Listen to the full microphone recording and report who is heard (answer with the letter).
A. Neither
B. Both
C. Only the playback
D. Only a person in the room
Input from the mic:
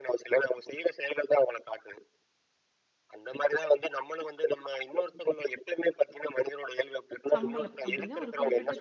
B